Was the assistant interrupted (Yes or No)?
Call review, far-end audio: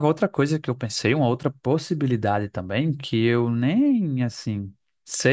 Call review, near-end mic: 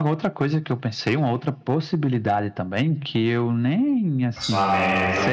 Yes